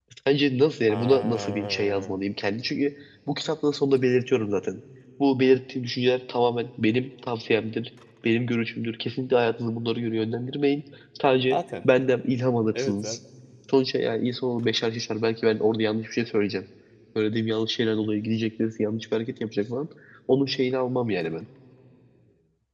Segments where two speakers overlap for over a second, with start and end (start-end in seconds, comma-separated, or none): 0.9-2.2